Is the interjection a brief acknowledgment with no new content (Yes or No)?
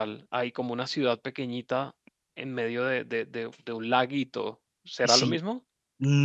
No